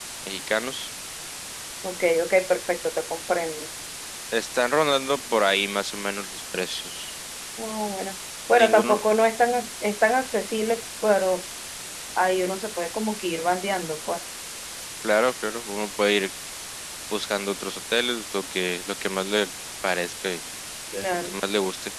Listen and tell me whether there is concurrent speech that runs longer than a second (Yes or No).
No